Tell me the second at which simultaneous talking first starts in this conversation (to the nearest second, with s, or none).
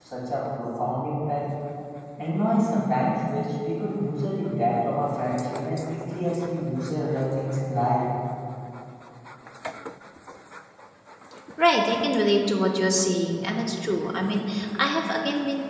none